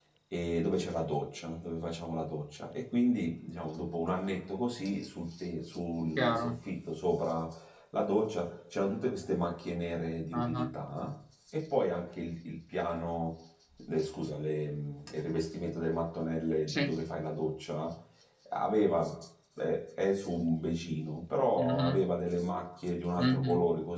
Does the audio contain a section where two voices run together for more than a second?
No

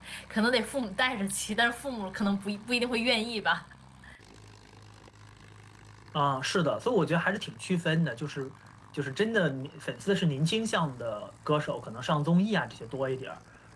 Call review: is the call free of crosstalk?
Yes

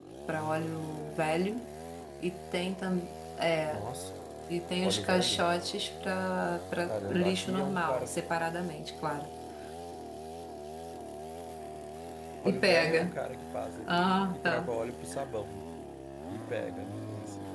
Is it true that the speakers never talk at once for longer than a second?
No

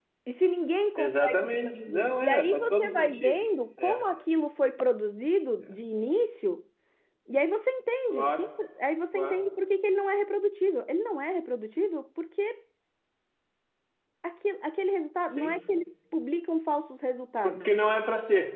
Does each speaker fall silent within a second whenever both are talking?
No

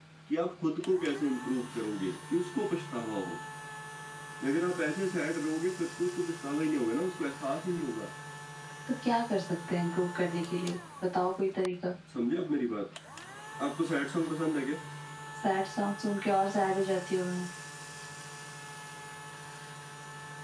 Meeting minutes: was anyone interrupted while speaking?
No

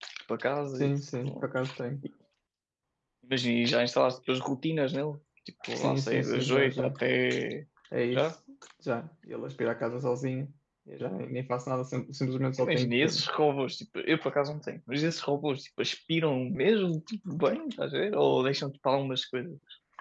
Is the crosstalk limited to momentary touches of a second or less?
No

